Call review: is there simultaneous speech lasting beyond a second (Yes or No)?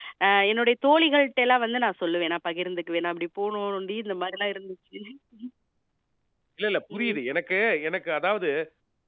No